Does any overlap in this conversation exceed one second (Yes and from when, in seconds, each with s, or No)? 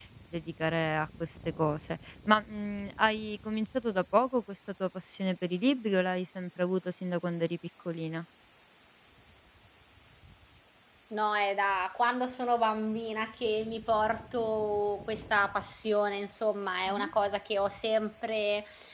No